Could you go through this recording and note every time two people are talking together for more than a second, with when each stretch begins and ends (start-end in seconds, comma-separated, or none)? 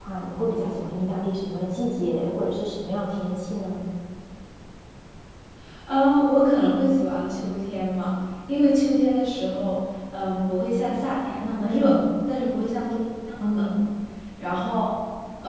none